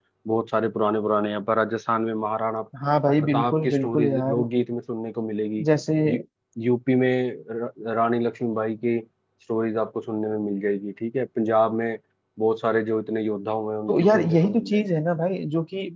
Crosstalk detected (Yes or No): Yes